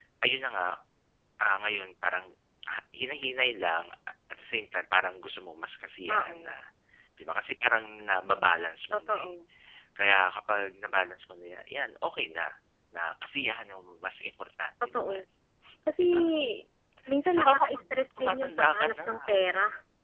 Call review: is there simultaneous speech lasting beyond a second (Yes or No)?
Yes